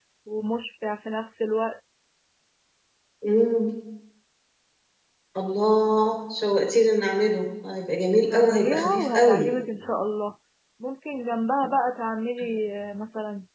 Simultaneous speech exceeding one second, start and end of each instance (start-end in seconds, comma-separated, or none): 8.2-9.5